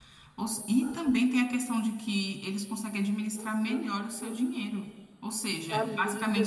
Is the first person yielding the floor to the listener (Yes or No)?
No